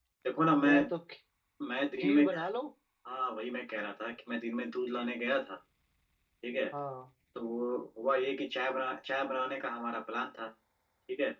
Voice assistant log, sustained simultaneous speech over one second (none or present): none